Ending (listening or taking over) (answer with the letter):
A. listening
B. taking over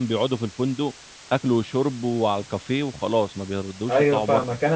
B